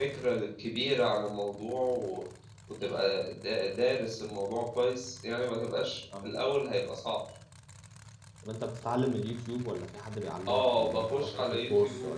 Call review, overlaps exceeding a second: present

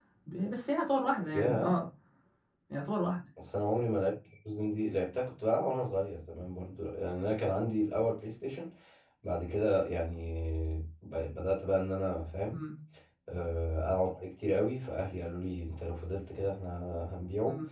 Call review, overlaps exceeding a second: none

